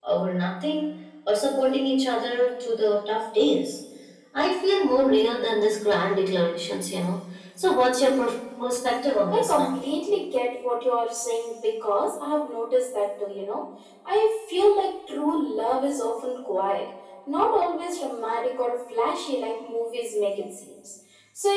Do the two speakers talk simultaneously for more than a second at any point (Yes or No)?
No